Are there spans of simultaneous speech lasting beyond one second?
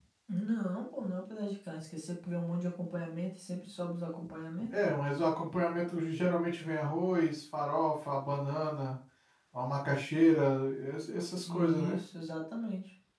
No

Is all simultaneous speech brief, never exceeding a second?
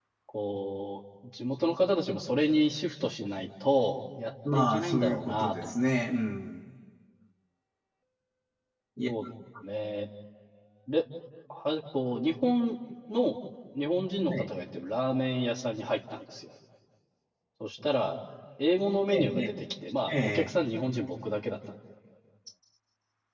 No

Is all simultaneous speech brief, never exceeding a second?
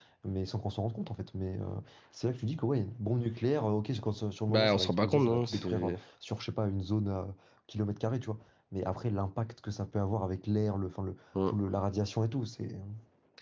No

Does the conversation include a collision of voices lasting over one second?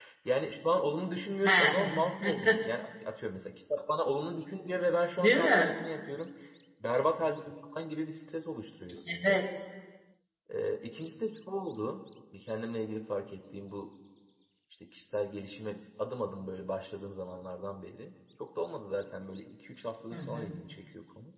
Yes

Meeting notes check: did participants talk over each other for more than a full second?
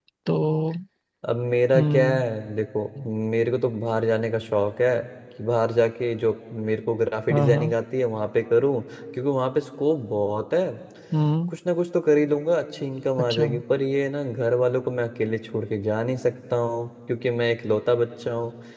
No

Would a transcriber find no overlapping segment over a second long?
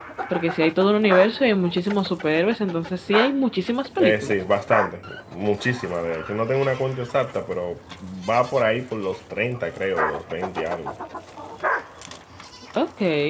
Yes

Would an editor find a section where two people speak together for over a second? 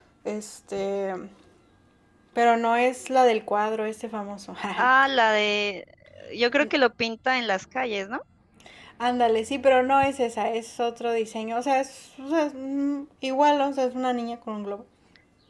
No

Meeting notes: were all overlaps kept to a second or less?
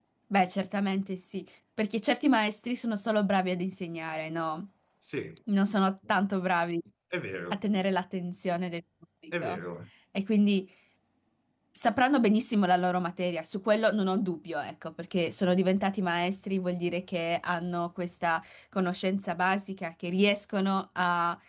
Yes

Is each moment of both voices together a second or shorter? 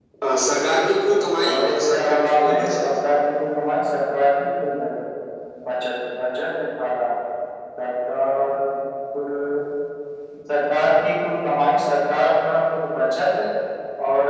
No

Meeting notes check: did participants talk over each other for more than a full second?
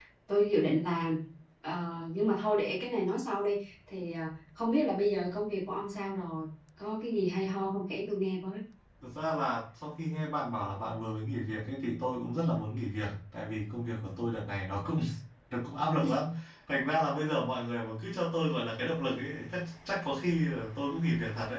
No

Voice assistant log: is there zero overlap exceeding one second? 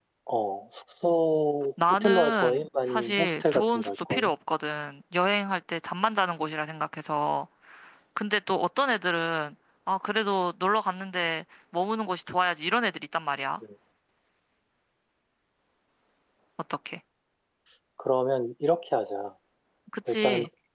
No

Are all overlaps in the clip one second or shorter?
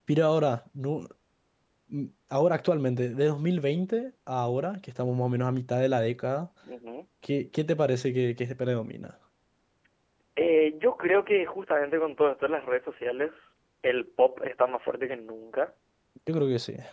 Yes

